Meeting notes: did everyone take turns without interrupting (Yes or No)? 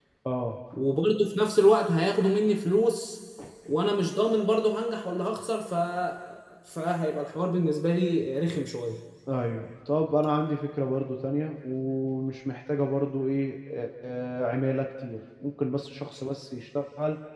Yes